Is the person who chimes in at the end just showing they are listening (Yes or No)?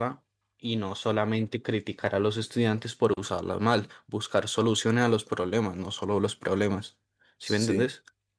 No